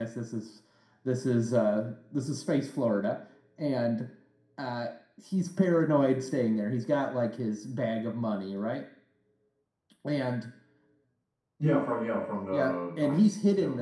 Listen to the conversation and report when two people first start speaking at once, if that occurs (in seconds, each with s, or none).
12.5 s